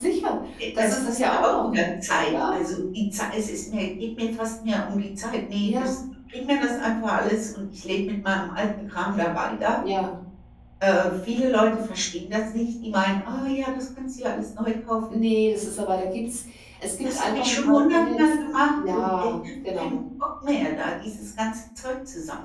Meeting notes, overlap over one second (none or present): present